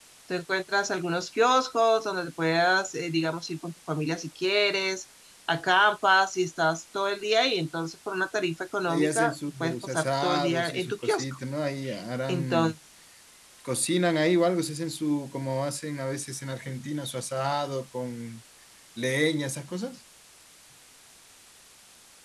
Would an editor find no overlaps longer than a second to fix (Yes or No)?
No